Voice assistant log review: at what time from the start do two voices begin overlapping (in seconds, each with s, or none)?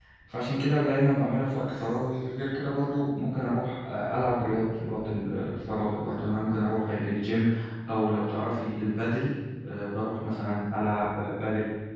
none